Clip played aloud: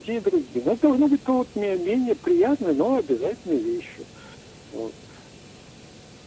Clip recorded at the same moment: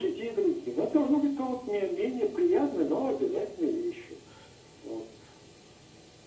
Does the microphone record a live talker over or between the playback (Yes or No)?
No